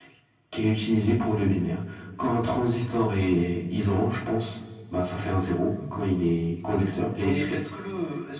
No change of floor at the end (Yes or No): No